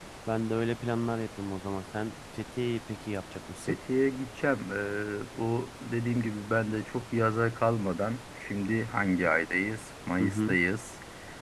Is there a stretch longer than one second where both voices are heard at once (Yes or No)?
No